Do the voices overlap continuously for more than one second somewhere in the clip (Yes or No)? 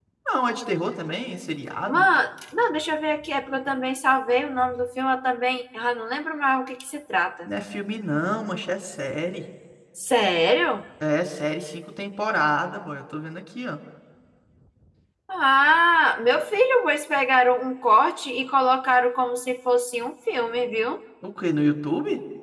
No